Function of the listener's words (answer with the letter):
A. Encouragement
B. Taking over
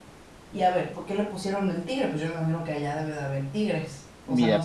B